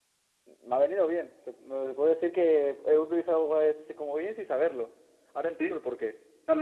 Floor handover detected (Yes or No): Yes